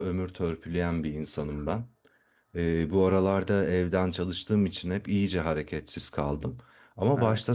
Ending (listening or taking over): listening